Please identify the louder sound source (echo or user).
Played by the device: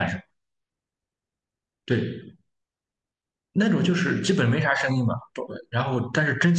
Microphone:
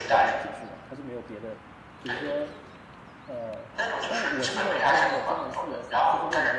echo